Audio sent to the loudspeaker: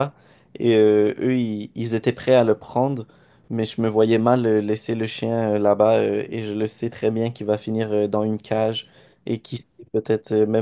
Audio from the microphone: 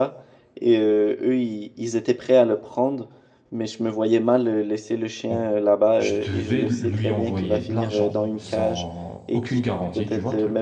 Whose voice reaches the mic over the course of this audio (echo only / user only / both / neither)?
both